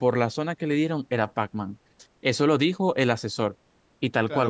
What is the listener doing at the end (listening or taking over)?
taking over